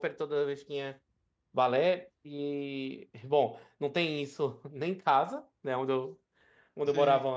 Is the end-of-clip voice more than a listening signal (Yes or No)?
No